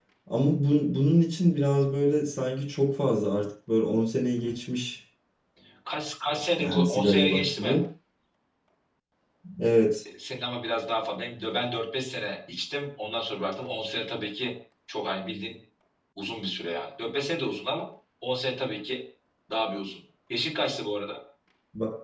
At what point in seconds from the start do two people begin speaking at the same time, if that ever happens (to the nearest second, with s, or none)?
7 s